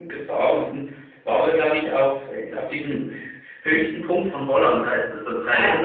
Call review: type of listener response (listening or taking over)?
taking over